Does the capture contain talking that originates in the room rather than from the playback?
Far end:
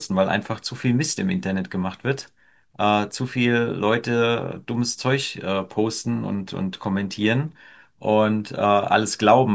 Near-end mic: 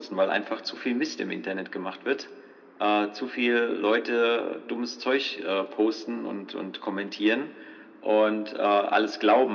No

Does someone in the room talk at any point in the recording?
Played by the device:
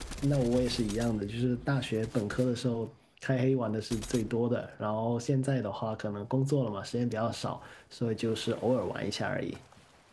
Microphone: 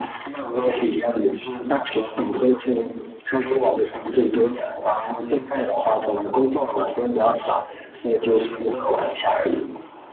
No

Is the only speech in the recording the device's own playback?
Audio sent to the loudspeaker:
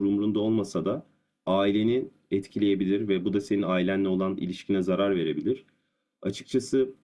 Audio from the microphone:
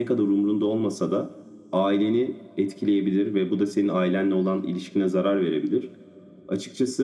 Yes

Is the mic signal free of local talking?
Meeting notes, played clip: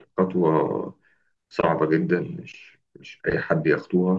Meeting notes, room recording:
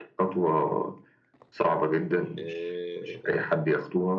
No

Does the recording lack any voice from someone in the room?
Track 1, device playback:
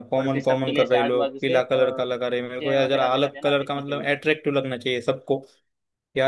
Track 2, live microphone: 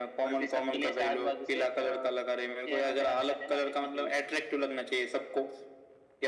Yes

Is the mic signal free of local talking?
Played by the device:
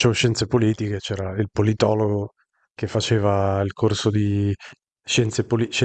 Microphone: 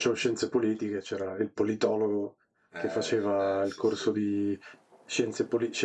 No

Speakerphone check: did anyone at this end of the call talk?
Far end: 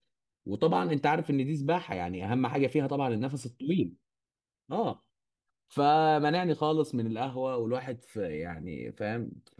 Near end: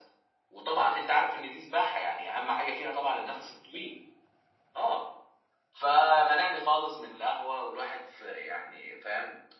No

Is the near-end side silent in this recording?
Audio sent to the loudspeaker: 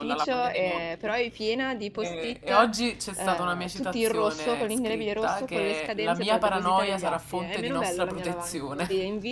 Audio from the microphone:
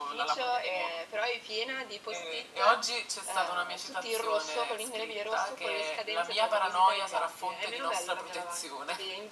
Yes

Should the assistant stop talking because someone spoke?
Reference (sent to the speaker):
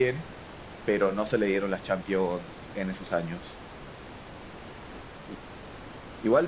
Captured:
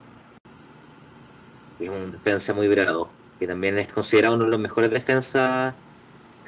Yes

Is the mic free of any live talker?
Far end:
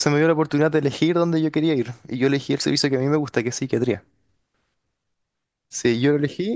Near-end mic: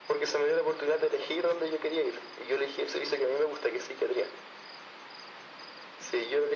Yes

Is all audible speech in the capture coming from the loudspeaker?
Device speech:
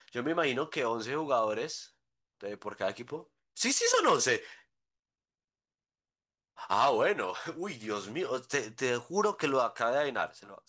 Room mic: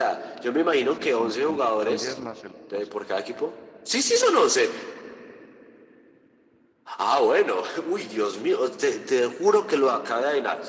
No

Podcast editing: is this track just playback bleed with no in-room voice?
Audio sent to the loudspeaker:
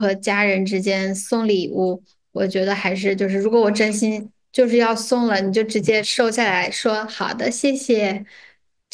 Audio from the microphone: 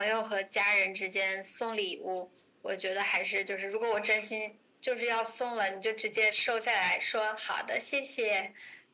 Yes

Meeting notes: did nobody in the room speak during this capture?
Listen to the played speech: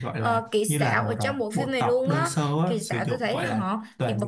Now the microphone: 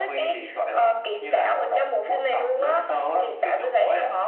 Yes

